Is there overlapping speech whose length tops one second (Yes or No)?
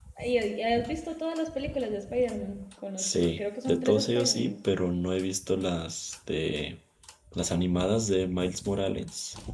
Yes